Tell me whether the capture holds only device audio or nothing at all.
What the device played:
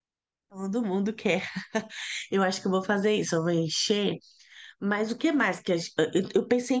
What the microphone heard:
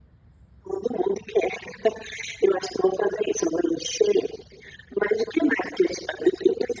Yes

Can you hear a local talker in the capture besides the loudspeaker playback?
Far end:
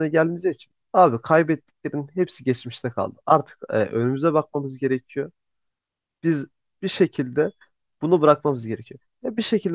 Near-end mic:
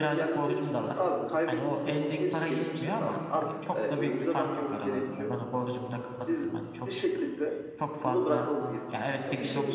Yes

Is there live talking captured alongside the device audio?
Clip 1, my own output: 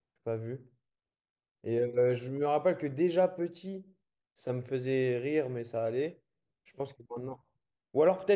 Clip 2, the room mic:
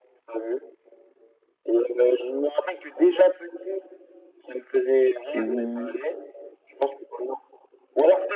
Yes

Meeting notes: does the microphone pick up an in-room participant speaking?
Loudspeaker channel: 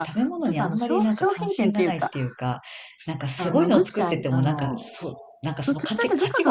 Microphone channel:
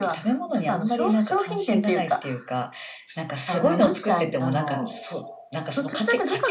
No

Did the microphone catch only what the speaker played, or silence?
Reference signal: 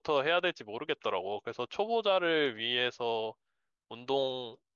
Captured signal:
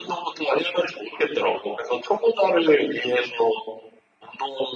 Yes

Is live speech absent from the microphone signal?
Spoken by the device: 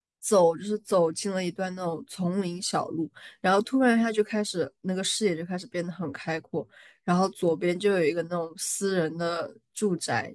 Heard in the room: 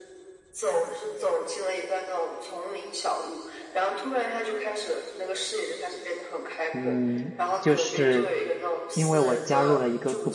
No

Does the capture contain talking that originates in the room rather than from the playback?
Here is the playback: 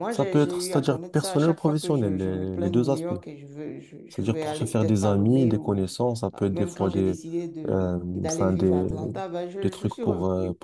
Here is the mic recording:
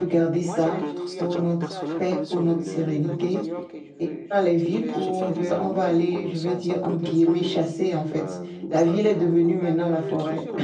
Yes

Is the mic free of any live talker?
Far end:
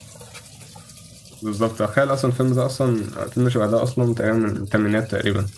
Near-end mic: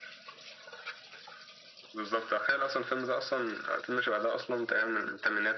Yes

